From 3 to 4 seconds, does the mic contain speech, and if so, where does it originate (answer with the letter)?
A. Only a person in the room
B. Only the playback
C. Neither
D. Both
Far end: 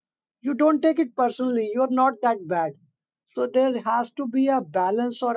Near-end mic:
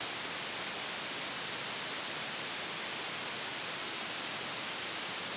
C